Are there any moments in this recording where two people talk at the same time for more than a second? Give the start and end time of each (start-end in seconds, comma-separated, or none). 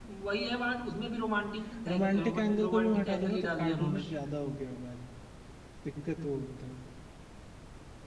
1.9-4.0